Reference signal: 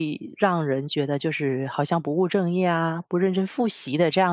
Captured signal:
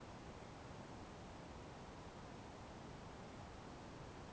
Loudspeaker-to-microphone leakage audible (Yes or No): No